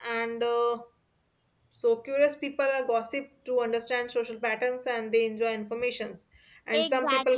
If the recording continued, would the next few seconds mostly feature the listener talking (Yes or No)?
Yes